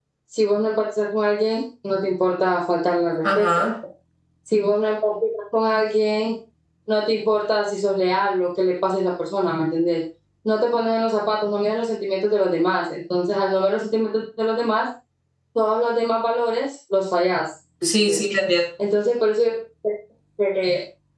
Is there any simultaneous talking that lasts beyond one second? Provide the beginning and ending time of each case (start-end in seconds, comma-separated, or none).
none